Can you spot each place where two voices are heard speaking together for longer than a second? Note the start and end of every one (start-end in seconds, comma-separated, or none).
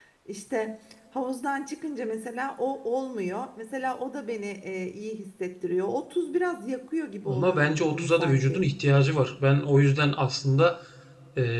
7.3-8.6